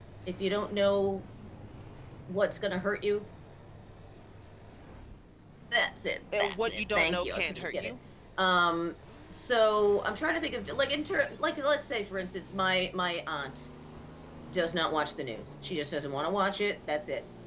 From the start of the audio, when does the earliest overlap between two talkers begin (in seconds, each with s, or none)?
6.4 s